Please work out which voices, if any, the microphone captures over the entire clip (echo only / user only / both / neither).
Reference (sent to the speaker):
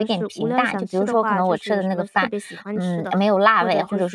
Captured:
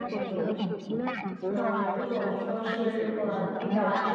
both